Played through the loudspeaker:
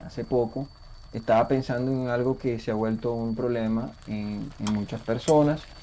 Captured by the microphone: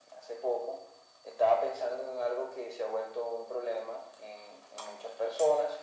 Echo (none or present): present